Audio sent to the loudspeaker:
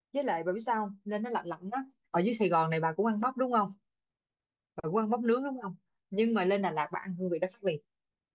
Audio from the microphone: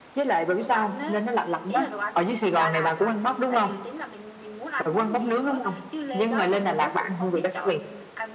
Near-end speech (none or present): present